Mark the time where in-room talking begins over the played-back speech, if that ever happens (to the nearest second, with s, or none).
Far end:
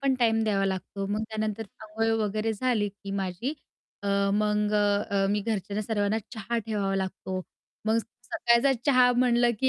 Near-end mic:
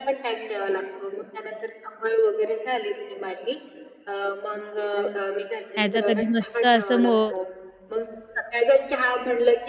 6 s